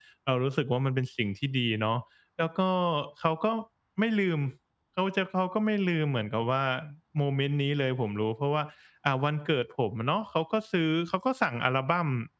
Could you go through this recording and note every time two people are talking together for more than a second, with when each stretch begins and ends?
none

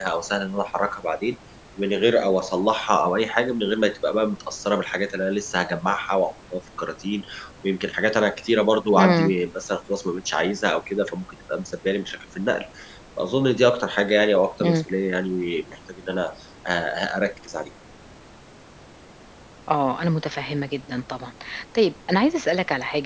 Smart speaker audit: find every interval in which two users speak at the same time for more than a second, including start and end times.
none

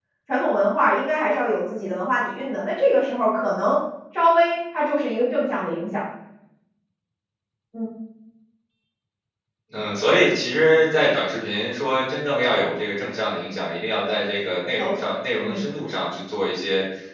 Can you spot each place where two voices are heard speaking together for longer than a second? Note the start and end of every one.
none

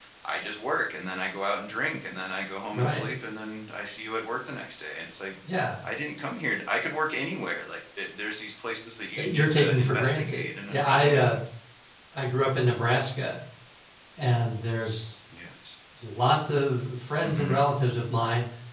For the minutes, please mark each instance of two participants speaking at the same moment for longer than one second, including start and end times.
9.2-11.3

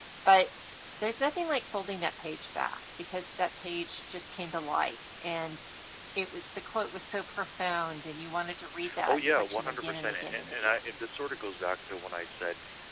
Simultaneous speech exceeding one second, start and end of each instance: 9.1-10.8

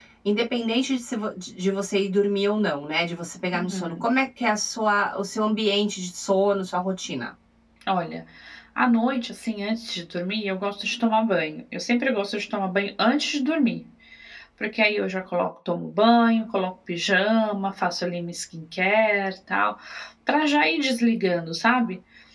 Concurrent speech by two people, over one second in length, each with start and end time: none

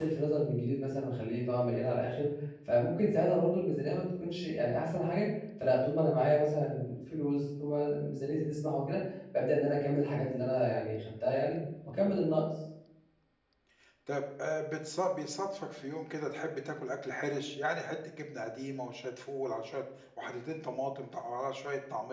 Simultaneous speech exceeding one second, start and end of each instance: none

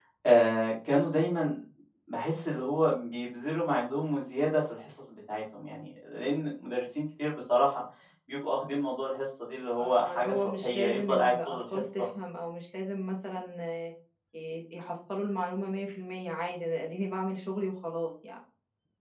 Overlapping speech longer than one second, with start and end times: 9.8-12.1

